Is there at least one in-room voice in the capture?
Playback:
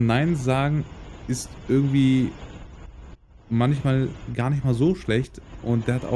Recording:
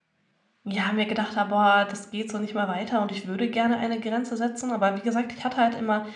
Yes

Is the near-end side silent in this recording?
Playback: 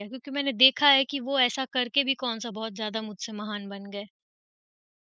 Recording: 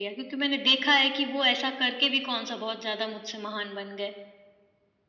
Yes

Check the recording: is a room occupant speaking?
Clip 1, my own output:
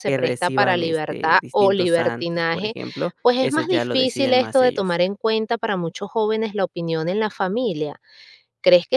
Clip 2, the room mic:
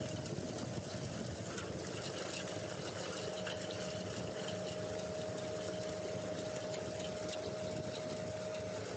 No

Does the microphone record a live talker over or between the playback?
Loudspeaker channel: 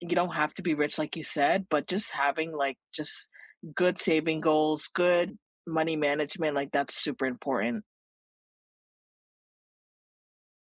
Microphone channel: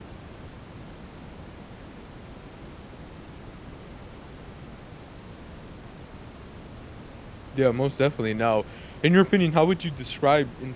Yes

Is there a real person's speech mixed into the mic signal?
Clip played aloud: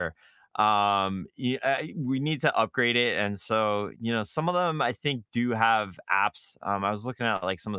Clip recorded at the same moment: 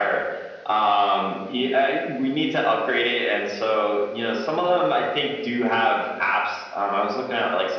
No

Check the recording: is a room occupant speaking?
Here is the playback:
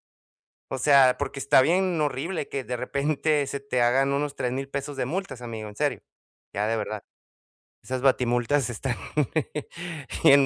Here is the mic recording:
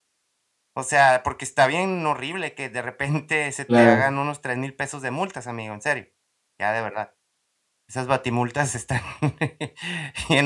Yes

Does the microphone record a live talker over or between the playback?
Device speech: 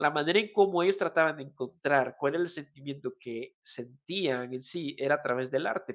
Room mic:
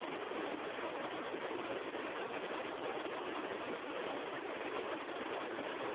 No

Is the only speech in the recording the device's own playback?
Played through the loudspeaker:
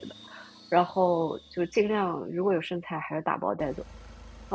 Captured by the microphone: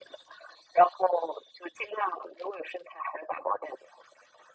Yes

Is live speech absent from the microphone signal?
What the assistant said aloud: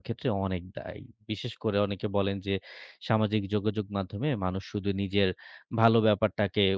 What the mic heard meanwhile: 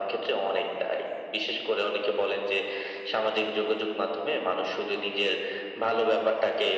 Yes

